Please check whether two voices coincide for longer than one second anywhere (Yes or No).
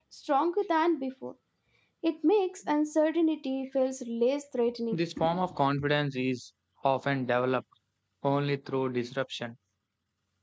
No